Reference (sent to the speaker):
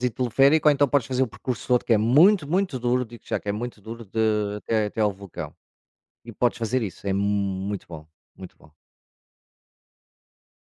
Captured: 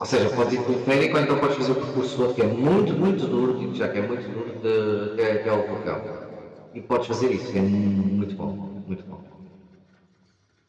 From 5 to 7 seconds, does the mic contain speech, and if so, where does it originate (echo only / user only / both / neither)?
echo only